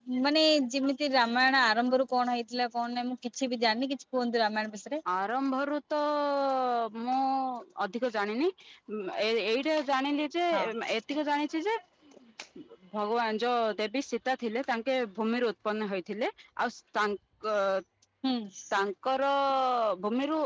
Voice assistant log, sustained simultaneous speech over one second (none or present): none